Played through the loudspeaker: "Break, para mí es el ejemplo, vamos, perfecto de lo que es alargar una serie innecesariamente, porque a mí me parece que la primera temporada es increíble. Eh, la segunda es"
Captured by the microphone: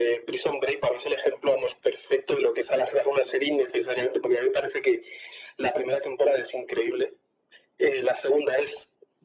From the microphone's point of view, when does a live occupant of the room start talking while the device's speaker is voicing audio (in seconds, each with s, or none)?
none